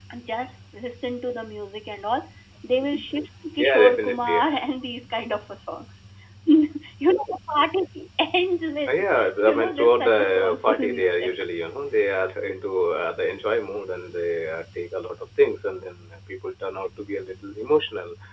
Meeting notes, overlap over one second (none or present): present